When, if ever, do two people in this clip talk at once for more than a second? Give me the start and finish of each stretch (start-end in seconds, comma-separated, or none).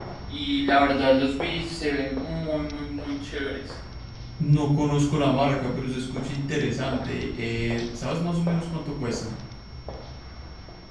none